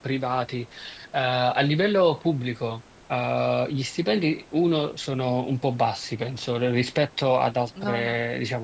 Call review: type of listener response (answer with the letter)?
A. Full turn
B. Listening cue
B